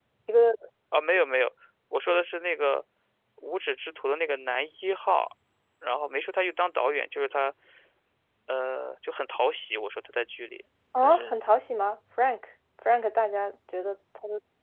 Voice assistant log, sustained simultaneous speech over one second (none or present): none